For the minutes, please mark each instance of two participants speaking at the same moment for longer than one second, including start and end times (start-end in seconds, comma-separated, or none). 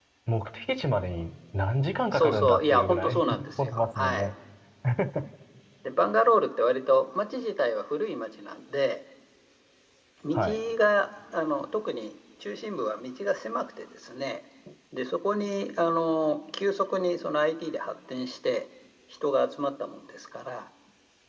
2.1-4.3